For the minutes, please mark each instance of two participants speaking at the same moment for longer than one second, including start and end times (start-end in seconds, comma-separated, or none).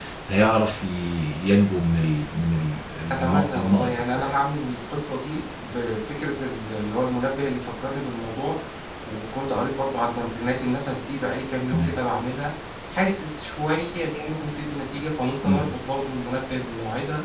3.1-4.4